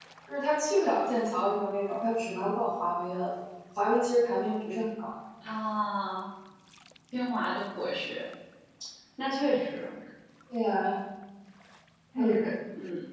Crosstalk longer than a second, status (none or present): none